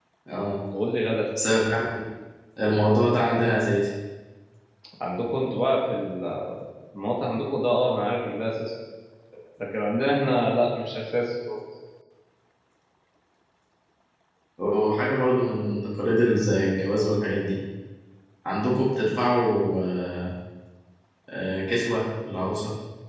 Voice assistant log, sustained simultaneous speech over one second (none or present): none